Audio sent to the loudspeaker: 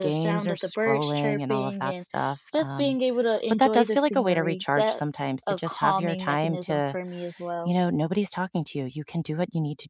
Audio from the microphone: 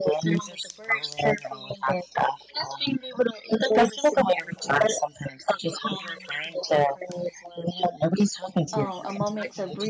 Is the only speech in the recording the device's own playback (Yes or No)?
No